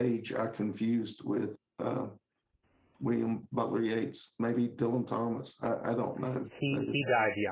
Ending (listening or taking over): taking over